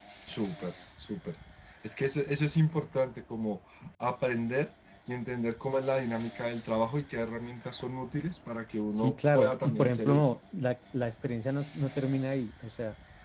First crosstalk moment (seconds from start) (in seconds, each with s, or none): 8.9 s